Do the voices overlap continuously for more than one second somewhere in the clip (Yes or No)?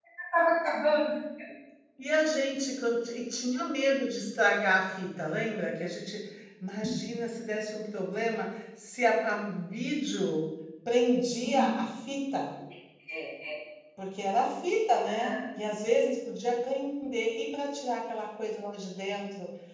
No